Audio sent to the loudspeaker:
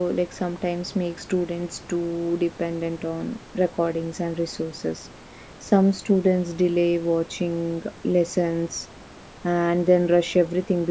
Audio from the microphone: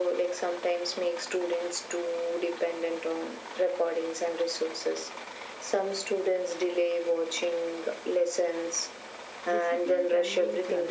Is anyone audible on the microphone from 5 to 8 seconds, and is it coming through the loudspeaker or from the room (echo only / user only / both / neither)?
echo only